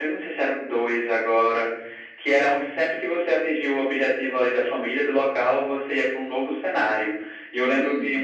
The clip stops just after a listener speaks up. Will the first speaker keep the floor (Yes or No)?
Yes